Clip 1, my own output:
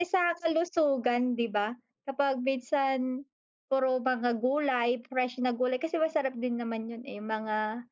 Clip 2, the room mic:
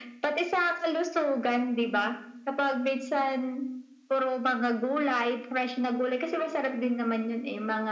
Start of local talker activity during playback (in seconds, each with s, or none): none